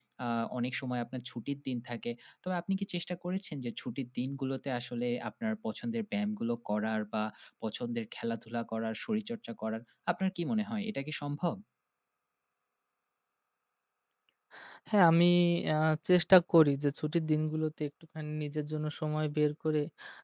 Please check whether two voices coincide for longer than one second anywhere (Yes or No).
No